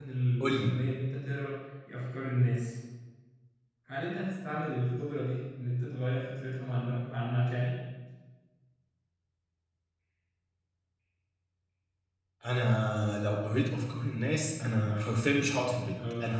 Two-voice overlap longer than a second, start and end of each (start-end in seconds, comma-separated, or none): none